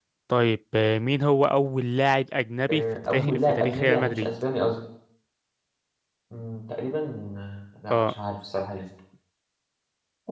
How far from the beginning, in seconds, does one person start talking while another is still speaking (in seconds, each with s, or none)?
2.7 s